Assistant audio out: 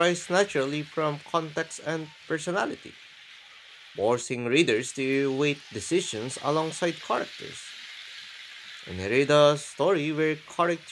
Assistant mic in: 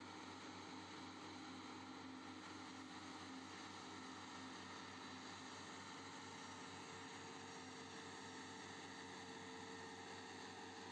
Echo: none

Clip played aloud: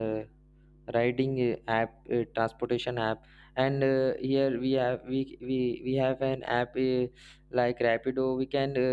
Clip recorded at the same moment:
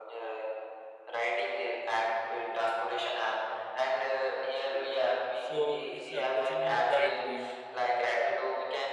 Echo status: present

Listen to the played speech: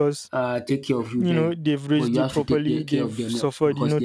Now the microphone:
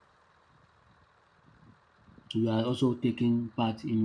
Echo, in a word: none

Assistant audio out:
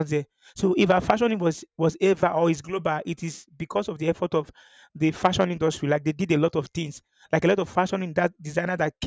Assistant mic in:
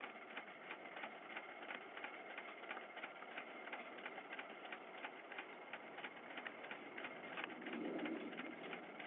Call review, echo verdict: none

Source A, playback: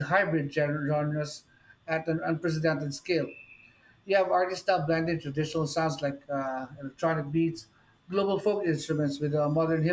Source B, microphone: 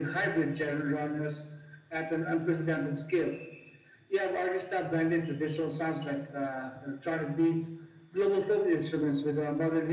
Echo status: present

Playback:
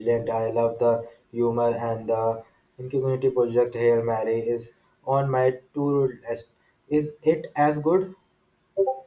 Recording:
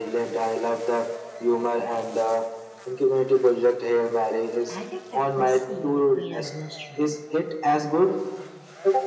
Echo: present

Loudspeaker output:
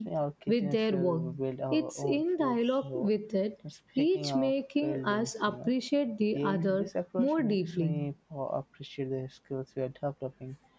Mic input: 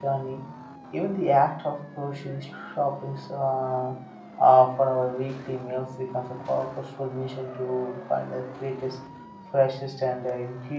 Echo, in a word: none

